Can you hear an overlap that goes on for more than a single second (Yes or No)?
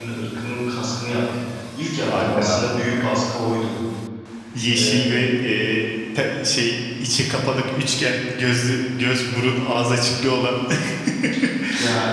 No